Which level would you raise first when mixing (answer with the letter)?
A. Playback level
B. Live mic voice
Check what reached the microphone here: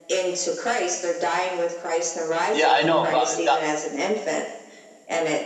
A